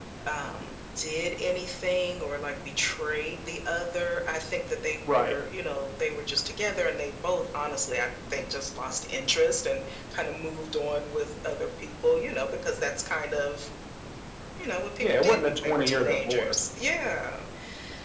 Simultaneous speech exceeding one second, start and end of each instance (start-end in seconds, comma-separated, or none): 15.0-16.6